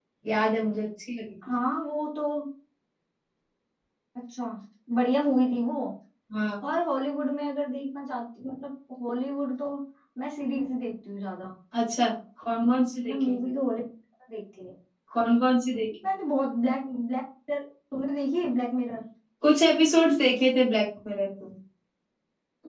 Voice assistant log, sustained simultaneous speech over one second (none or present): none